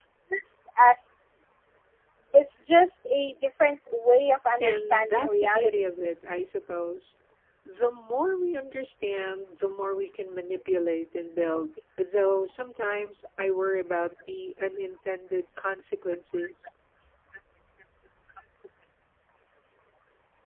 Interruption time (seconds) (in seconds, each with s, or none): 4.6 s